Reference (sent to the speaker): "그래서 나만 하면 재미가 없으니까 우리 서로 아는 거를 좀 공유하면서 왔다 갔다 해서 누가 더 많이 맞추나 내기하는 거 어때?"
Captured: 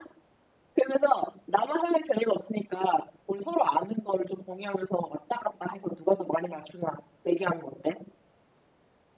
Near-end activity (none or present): none